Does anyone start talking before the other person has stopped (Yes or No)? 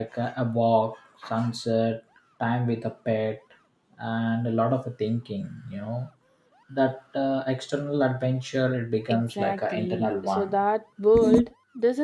Yes